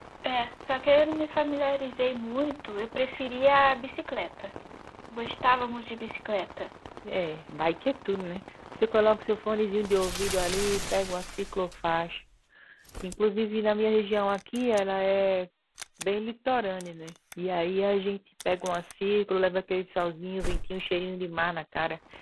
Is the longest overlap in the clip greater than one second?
No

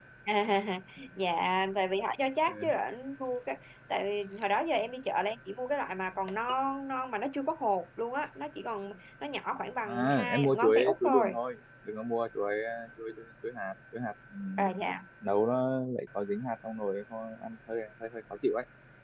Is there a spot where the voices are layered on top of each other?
Yes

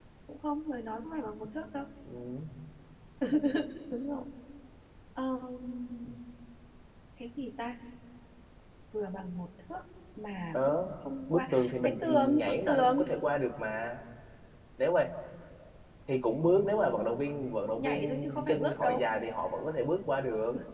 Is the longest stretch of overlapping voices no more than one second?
No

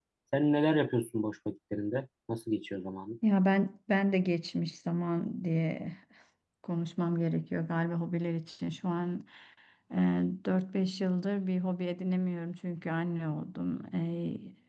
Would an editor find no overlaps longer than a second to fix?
Yes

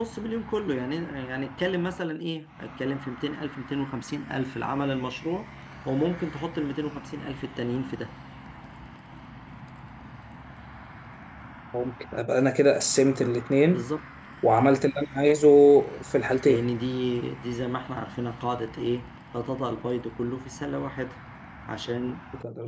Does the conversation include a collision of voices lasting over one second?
No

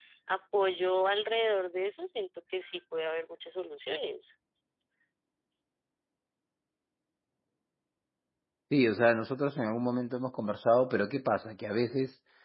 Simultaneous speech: No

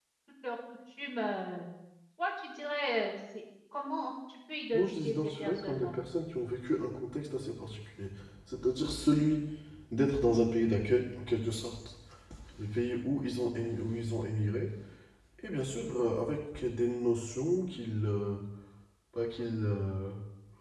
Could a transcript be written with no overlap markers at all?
No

